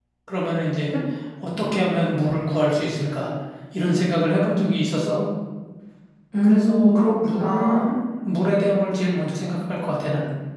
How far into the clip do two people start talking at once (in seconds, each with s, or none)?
6.4 s